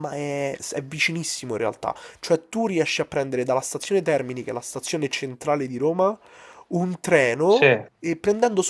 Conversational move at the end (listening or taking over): listening